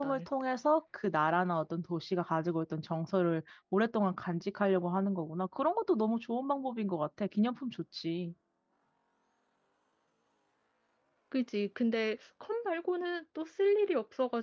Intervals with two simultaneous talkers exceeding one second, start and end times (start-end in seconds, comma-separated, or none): none